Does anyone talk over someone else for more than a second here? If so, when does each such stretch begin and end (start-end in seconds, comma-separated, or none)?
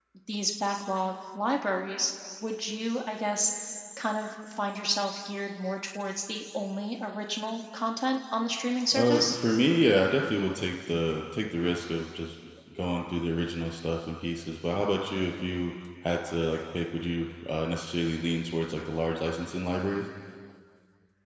none